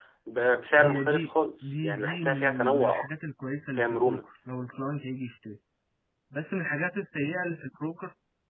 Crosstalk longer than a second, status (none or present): present